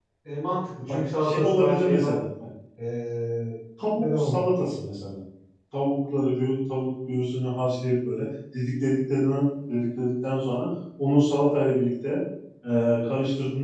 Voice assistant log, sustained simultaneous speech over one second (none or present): present